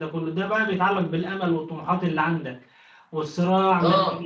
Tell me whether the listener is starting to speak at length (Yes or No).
No